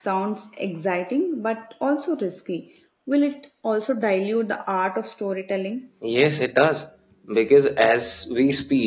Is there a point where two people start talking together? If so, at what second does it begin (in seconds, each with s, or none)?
none